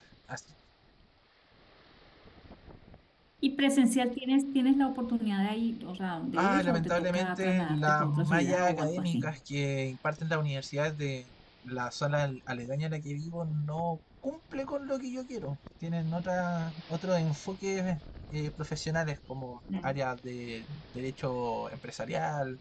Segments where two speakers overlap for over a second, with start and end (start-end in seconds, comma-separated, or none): 6.3-9.4